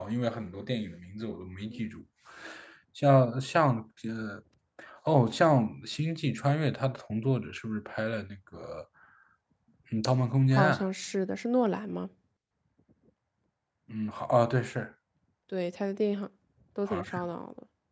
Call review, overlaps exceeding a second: none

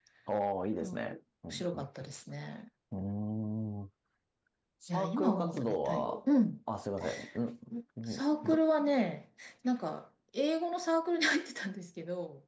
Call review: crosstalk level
present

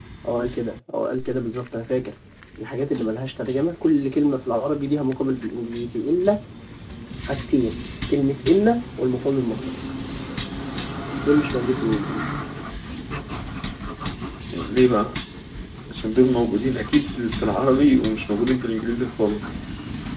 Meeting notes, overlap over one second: none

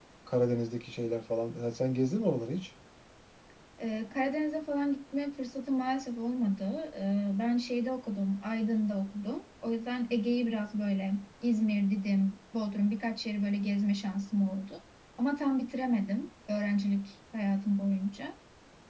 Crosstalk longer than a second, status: none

